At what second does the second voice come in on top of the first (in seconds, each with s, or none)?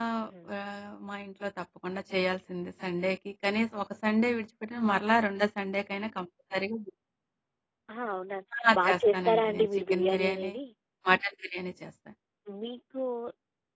8.9 s